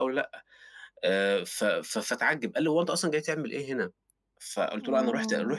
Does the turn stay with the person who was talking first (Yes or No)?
Yes